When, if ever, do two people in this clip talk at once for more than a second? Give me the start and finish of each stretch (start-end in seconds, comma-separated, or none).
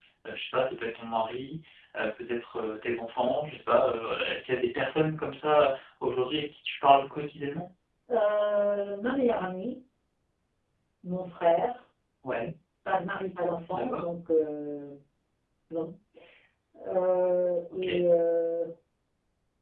none